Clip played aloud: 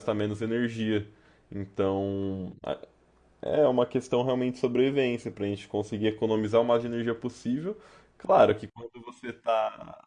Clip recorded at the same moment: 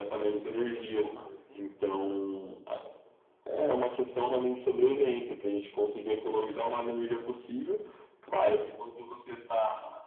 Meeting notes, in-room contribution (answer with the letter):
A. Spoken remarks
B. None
A